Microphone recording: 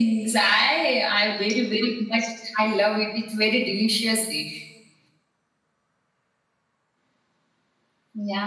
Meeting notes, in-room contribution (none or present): none